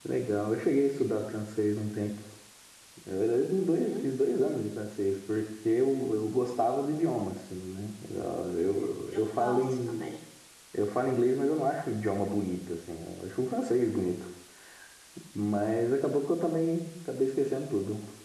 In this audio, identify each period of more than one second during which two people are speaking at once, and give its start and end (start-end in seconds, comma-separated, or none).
8.7-10.1